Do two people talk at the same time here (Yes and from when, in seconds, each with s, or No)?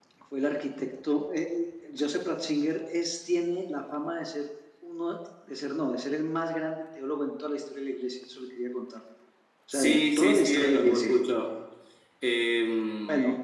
Yes, from 9.7 s